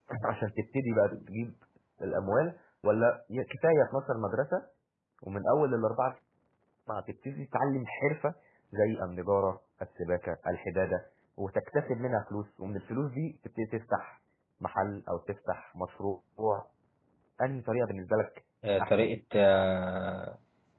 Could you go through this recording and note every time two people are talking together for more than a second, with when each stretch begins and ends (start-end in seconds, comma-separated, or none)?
none